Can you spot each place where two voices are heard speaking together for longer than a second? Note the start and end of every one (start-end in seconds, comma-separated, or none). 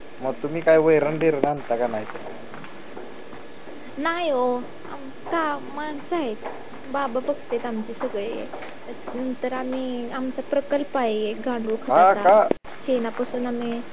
none